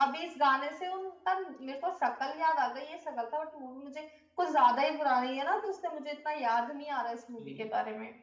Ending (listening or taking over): taking over